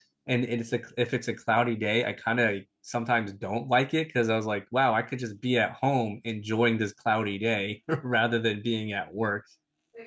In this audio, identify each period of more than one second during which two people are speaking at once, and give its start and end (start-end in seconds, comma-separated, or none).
none